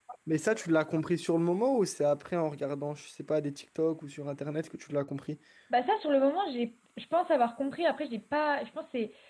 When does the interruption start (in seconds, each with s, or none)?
none